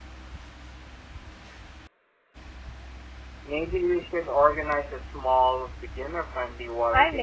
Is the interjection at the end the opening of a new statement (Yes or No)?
Yes